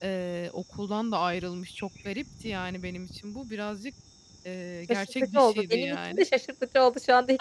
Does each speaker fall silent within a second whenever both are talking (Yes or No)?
No